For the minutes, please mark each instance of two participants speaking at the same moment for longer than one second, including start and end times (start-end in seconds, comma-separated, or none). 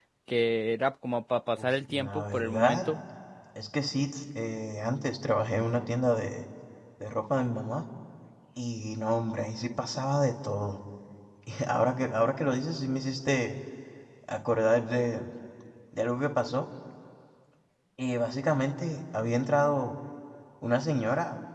1.6-2.9